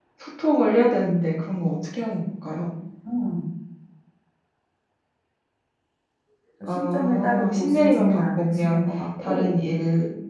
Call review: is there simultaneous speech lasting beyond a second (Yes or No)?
Yes